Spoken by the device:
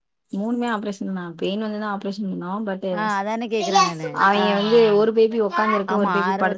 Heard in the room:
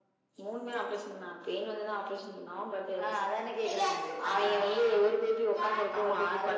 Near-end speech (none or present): none